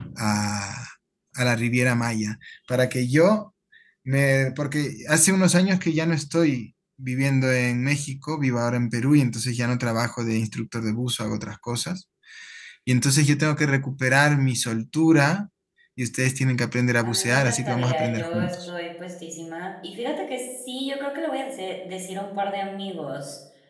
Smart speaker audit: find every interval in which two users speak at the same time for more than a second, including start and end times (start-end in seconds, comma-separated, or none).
17.0-18.6